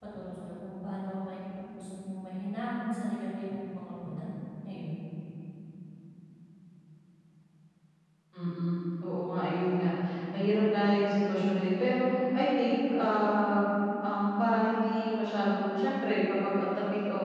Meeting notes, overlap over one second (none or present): none